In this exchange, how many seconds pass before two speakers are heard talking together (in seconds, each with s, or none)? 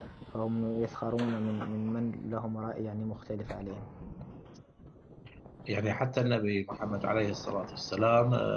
none